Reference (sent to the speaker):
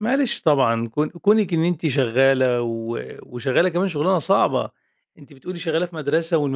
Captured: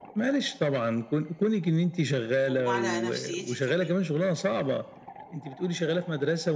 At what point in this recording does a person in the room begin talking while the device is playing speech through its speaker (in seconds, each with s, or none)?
2.4 s